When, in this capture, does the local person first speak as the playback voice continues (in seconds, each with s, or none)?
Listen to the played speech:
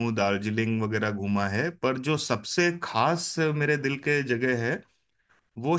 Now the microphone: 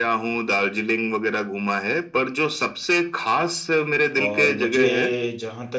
4.2 s